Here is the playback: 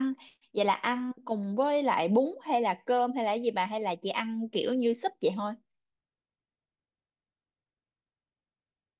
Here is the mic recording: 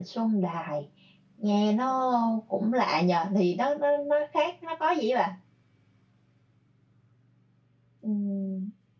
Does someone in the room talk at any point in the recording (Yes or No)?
Yes